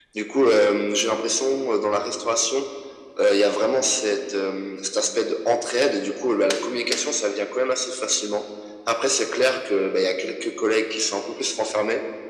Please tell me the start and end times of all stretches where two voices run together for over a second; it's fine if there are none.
none

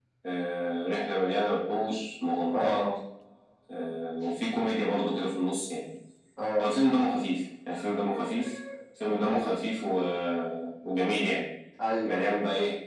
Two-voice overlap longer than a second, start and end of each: none

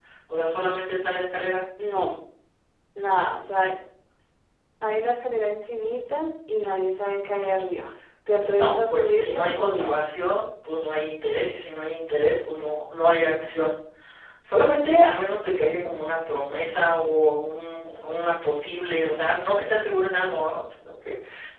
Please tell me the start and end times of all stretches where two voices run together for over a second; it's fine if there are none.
8.3-10.0

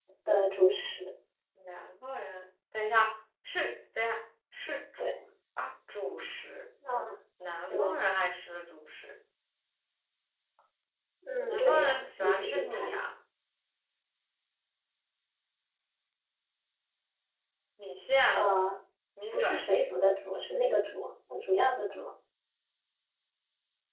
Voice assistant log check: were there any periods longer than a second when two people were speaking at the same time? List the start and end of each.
11.5-13.0

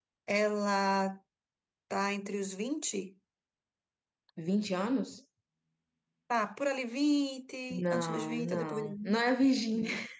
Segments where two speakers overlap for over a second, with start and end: 7.9-9.2

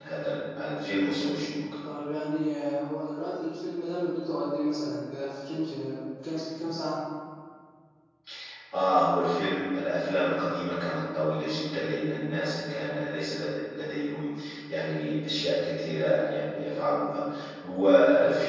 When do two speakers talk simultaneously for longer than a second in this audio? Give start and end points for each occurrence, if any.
none

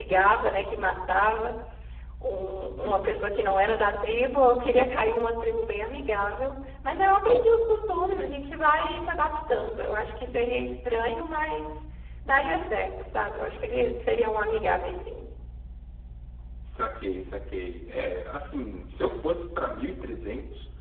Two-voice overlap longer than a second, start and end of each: none

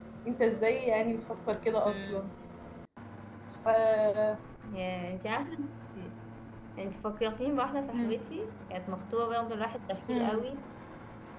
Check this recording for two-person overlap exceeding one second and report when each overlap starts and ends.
none

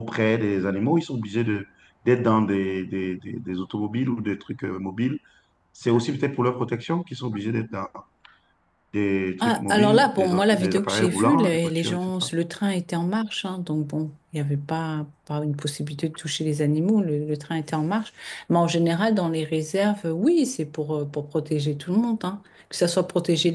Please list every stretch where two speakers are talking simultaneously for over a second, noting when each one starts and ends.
9.4-12.3

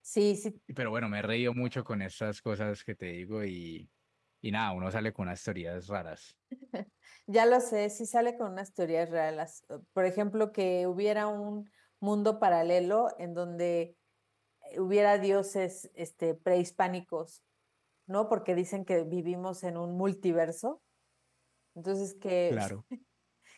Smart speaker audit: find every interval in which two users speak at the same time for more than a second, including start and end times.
none

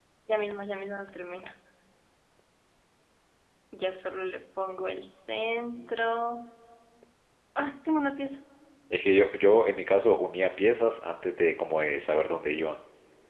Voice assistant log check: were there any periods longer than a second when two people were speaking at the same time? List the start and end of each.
none

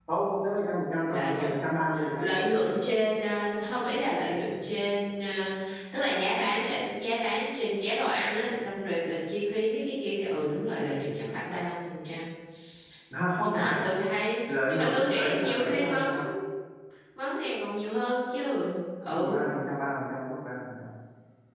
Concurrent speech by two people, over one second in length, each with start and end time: 14.5-16.0

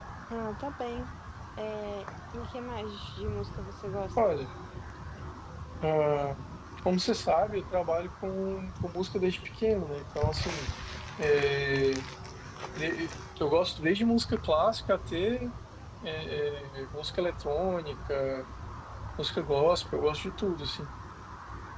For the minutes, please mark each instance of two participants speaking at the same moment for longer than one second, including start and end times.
none

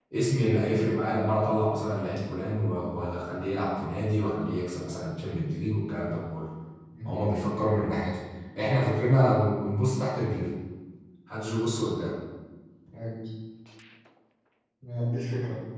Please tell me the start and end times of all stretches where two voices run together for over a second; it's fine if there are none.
none

